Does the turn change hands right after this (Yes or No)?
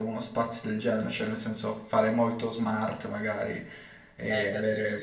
Yes